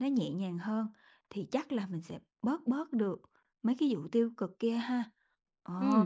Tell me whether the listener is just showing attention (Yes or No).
No